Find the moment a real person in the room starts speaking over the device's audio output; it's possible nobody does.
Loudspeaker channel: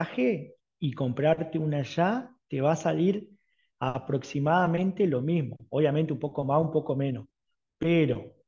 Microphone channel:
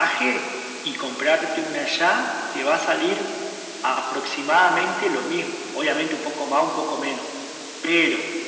none

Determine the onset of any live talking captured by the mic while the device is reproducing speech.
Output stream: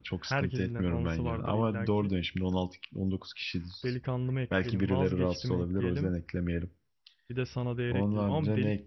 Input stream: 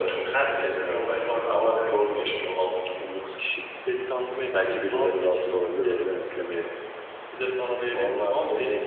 none

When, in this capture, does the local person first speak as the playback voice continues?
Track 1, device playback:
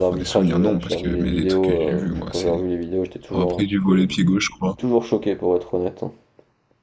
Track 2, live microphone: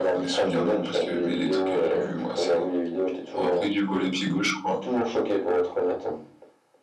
none

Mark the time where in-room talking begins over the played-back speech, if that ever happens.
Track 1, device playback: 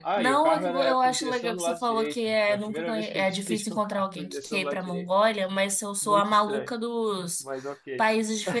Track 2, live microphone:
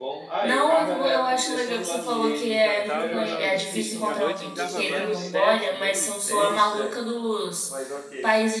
2 s

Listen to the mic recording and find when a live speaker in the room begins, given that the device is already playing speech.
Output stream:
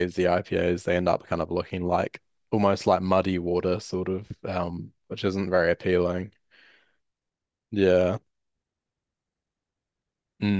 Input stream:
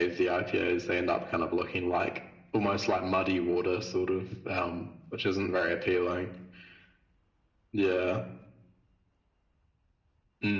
none

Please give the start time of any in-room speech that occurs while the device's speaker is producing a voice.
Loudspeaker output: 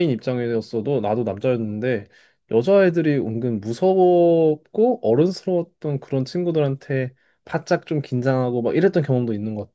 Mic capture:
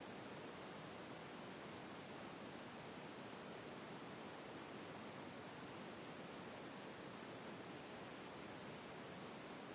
none

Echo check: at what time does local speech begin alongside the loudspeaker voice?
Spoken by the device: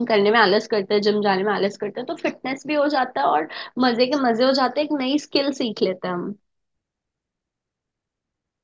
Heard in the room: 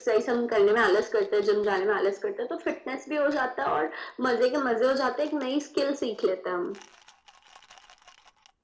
none

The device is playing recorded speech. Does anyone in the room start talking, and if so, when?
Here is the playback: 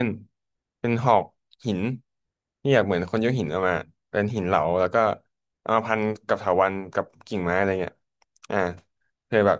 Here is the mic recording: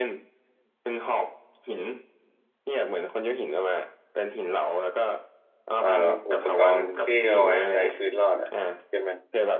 6 s

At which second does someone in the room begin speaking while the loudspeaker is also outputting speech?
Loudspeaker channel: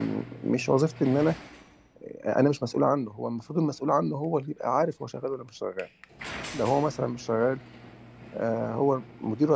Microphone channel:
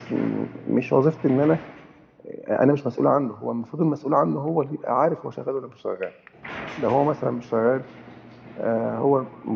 none

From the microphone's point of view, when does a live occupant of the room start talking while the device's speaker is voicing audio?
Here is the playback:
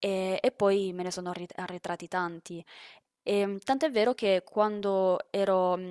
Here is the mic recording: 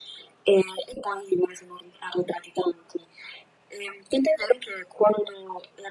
none

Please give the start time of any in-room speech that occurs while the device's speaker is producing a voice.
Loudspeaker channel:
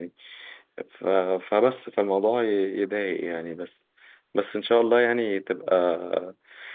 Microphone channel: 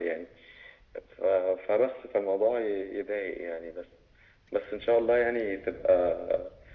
none

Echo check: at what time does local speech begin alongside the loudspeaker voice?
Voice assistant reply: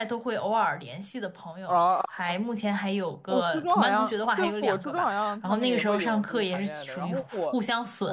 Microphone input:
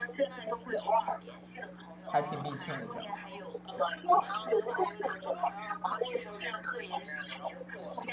2 s

